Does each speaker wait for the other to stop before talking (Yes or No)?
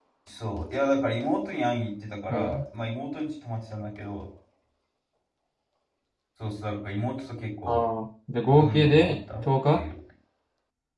No